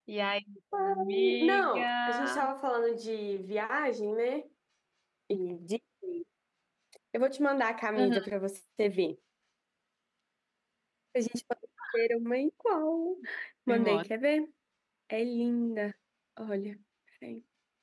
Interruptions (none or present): present